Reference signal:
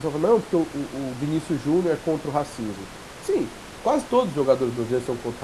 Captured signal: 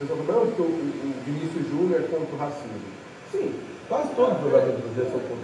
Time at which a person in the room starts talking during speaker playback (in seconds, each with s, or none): 4.0 s